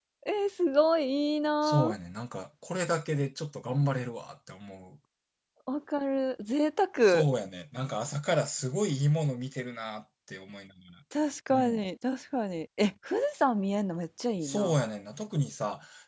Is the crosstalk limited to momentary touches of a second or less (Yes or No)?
Yes